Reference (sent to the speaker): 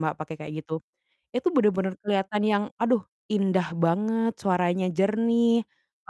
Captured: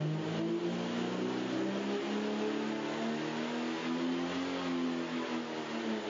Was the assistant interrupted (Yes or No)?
No